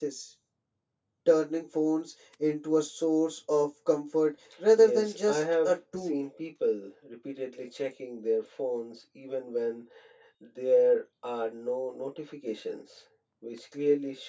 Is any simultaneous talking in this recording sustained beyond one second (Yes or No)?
Yes